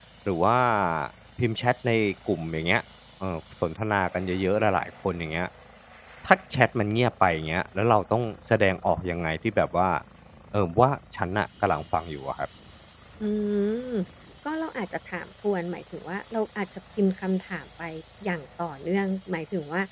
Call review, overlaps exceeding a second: none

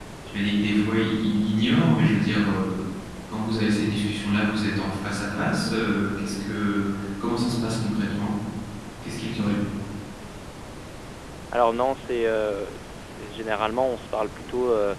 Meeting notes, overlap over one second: none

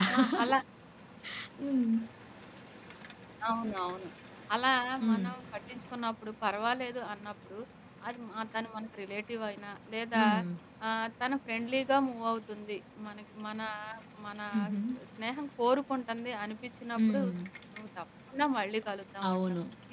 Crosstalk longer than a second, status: none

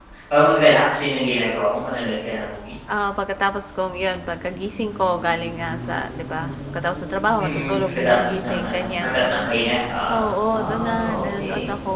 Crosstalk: present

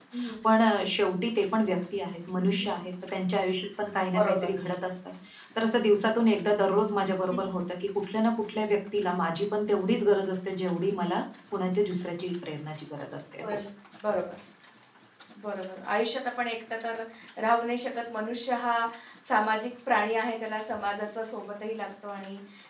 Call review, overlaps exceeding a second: none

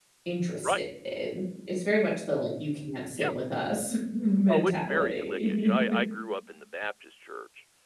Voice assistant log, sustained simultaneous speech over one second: present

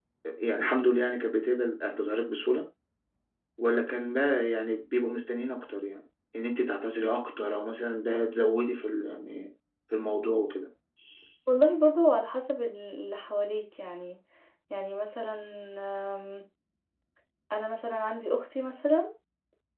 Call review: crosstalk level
none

